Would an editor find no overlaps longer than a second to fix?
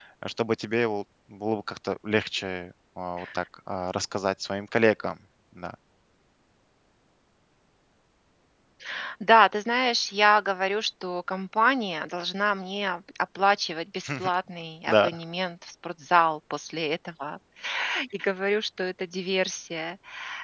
Yes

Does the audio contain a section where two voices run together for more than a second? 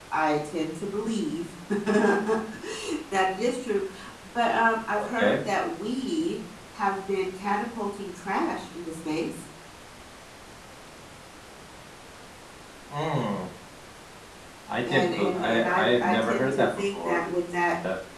Yes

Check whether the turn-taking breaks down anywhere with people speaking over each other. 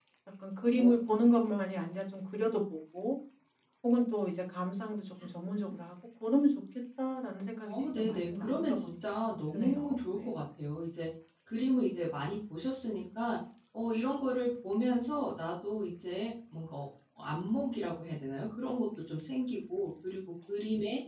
Yes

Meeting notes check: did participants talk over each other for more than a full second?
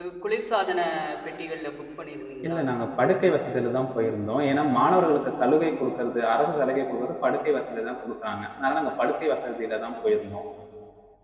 No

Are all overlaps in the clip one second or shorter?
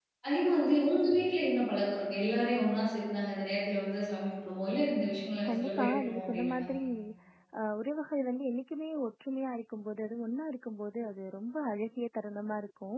No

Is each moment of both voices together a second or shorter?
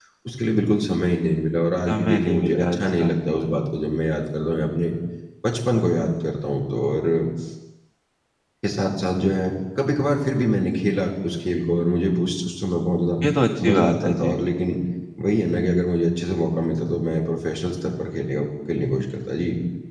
No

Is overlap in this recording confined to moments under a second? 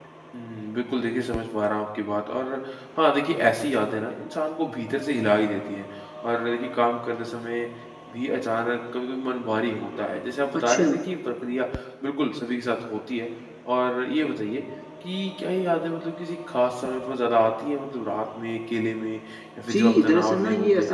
No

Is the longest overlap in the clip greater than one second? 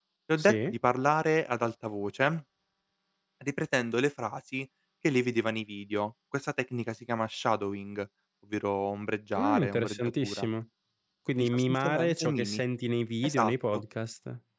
Yes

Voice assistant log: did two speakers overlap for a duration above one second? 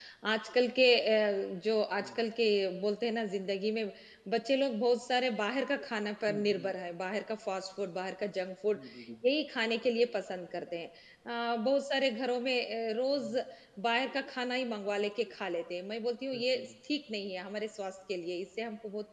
No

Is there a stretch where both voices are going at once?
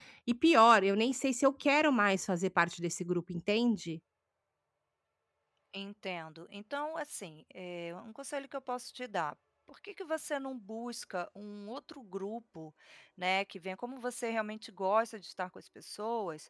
No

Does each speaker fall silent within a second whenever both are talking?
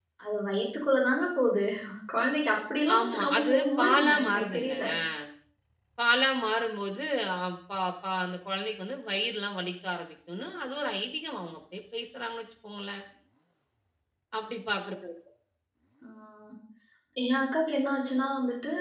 No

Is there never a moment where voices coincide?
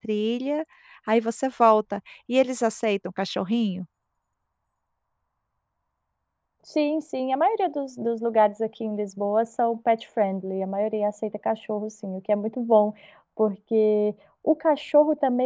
Yes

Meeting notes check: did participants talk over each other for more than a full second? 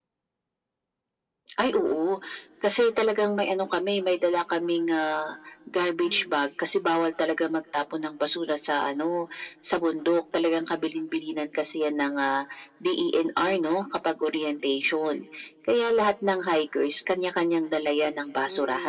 No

